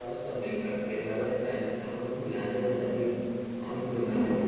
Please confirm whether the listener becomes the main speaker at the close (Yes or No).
No